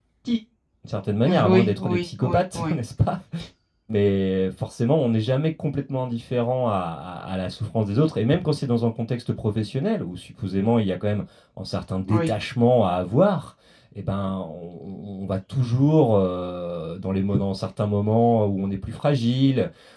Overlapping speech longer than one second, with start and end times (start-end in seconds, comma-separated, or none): 1.2-2.8